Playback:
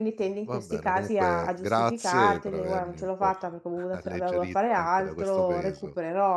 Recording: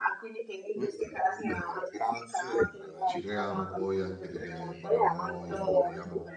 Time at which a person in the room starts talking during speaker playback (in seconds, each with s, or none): 3.0 s